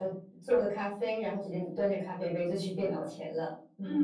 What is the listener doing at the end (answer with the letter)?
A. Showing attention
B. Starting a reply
B